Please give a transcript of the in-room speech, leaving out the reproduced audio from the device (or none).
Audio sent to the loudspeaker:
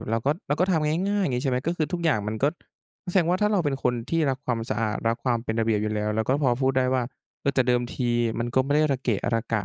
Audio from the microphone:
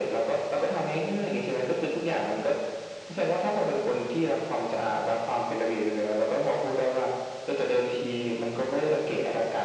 none